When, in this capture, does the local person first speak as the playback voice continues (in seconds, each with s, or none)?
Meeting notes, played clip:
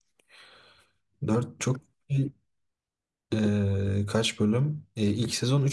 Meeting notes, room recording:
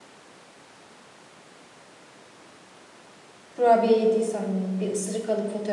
3.5 s